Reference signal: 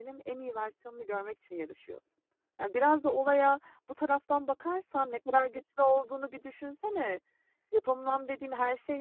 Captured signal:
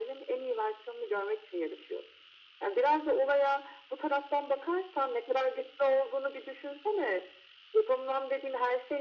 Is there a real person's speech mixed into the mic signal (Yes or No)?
No